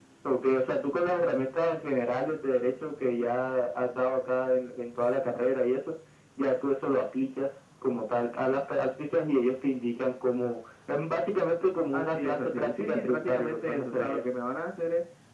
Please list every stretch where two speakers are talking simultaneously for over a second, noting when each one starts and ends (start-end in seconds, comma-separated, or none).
11.9-14.2